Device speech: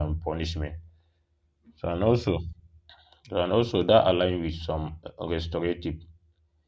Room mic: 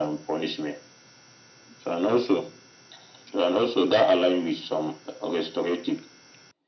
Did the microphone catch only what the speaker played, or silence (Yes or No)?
Yes